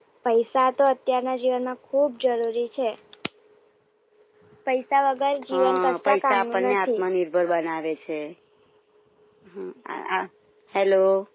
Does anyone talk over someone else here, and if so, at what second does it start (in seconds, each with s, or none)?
5.5 s